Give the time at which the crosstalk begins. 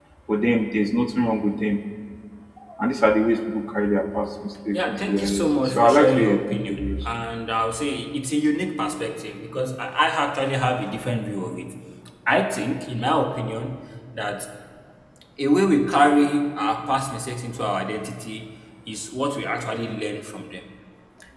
4.7 s

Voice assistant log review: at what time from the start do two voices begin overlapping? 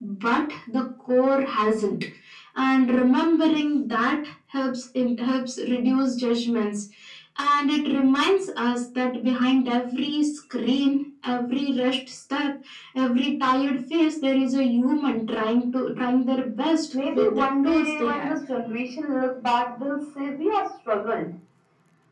16.9 s

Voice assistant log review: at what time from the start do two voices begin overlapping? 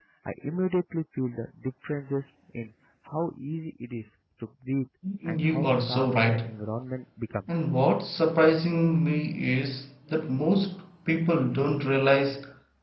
5.0 s

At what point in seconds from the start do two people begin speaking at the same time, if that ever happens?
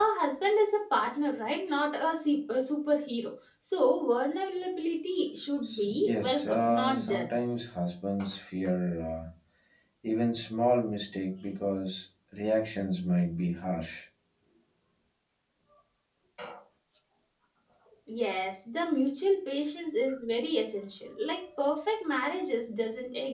5.6 s

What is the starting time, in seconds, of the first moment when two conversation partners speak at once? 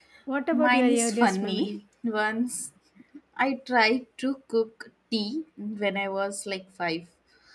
0.5 s

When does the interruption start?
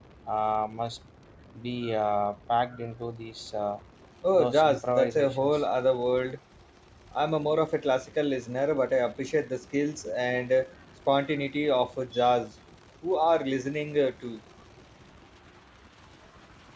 4.3 s

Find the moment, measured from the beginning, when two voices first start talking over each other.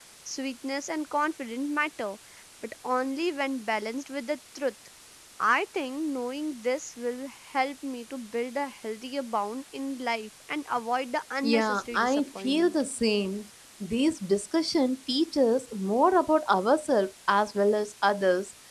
11.4 s

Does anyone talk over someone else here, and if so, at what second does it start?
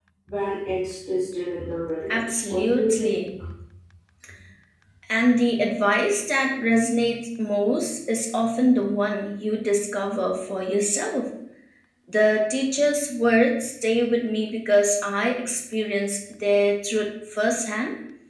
2.1 s

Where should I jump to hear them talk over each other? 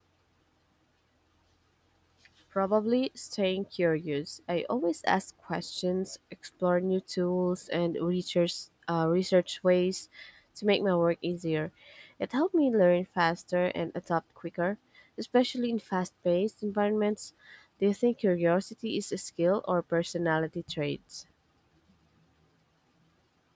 none

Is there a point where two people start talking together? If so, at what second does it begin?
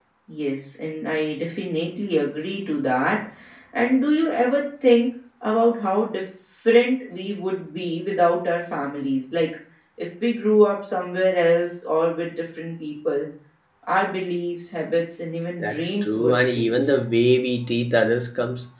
15.6 s

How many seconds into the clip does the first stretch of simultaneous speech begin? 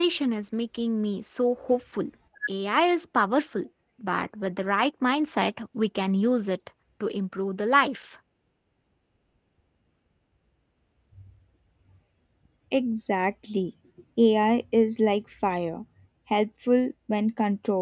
none

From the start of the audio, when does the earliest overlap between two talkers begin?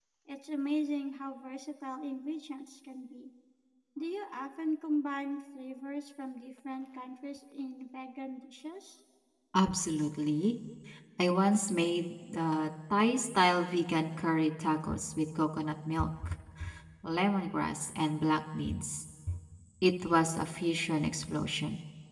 none

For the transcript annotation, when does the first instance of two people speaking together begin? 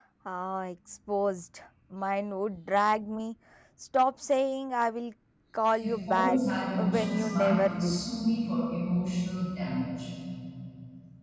5.8 s

